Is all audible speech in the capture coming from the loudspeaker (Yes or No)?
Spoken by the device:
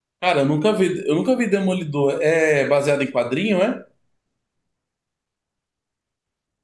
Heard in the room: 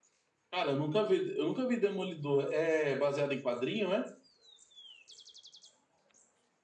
Yes